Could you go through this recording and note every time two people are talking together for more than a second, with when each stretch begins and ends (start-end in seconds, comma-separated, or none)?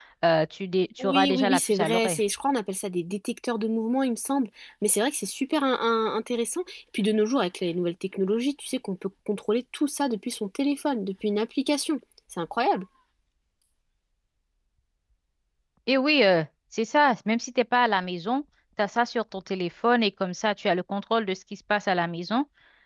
1.0-2.2